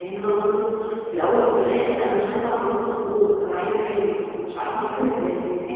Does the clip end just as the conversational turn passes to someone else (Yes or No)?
Yes